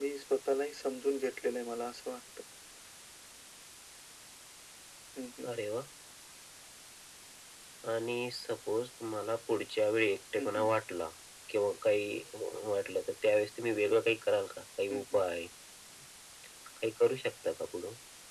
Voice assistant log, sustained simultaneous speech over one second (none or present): none